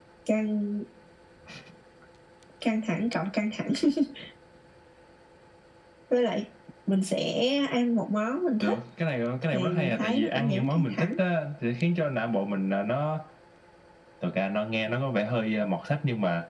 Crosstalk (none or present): present